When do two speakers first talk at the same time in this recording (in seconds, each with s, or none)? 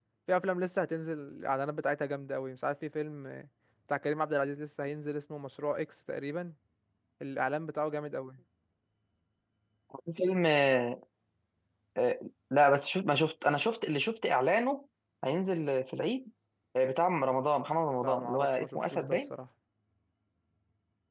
18.0 s